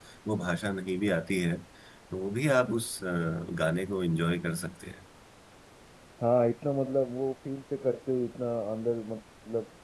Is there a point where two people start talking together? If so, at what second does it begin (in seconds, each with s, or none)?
none